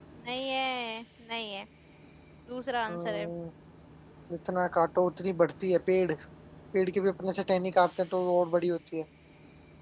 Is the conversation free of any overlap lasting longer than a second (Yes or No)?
Yes